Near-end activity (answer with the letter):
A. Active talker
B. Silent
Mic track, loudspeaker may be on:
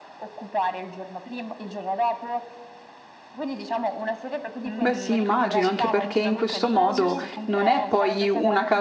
A